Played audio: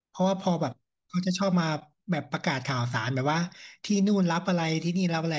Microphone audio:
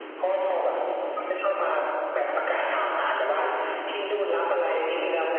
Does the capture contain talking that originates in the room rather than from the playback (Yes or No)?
No